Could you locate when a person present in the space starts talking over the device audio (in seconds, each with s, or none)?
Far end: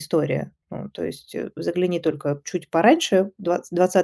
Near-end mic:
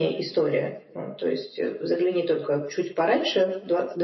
none